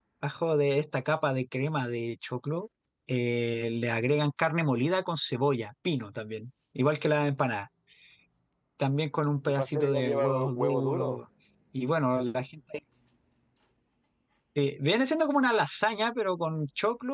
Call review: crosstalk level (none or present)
present